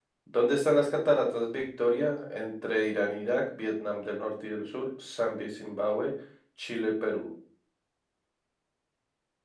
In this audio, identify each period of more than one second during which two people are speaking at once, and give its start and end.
none

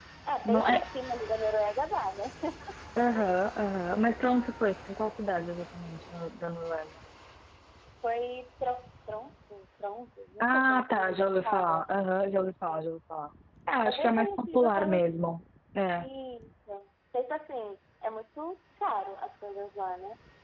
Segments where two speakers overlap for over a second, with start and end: 10.4-11.9, 13.8-15.1

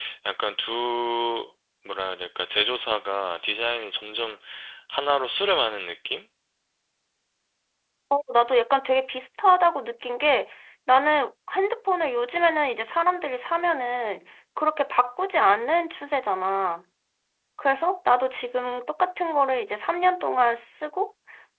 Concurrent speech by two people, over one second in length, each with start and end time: none

